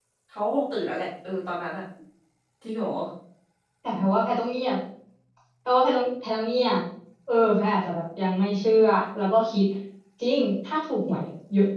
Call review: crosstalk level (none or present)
none